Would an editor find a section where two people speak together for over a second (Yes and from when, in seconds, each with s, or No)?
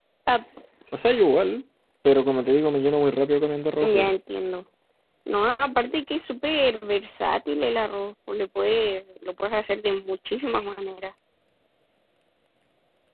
No